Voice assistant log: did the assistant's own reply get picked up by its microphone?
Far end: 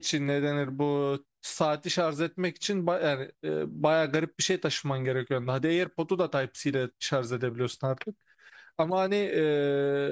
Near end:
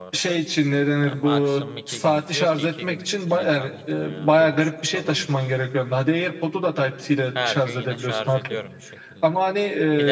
Yes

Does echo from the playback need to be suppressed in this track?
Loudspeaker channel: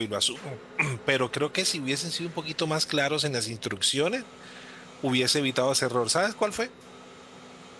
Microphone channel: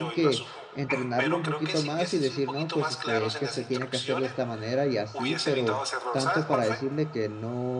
Yes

